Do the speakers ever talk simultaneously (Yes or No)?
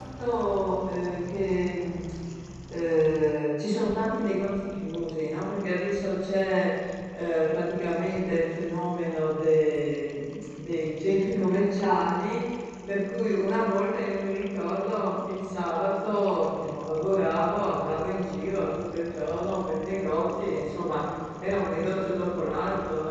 No